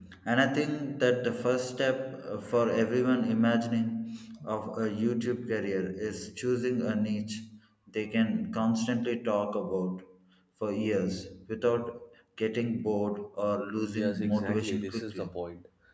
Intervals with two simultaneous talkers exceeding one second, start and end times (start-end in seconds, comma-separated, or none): 13.9-15.3